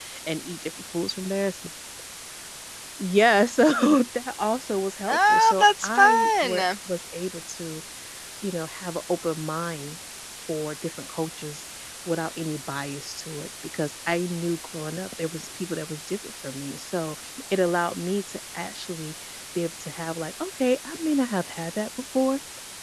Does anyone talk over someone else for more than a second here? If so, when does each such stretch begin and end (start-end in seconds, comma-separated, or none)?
5.1-6.6